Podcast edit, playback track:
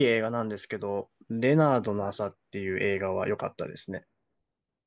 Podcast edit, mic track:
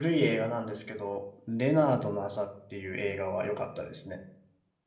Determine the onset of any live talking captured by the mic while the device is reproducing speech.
none

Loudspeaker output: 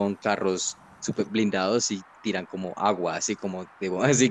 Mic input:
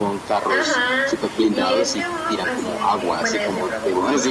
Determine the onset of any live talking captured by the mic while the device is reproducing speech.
0.5 s

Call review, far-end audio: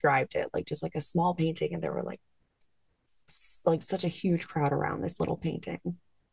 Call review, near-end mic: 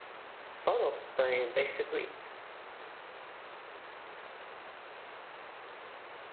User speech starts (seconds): 0.6 s

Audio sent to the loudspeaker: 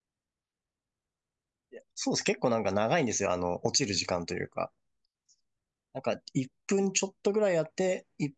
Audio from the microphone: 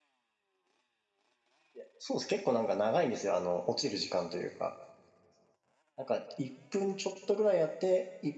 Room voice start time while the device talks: none

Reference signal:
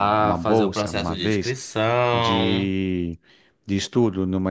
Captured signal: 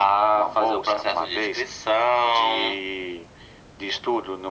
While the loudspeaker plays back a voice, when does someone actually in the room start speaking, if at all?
none

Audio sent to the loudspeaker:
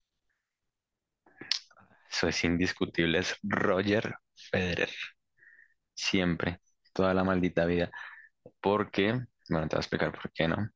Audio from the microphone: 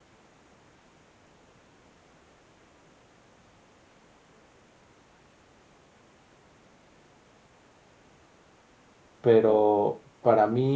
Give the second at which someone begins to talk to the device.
9.2 s

